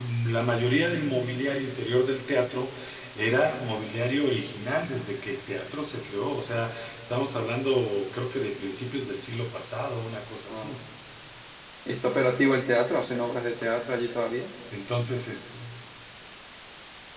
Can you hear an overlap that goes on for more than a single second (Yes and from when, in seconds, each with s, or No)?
No